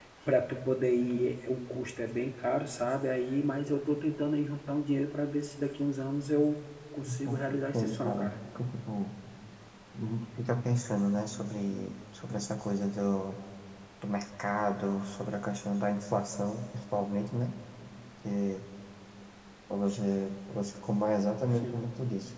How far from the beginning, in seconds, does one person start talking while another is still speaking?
7.0 s

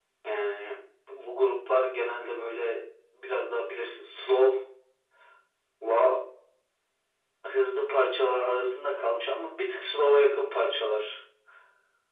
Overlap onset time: none

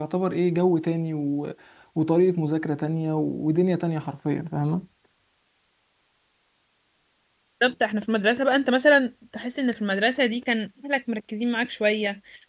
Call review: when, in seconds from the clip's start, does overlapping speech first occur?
none

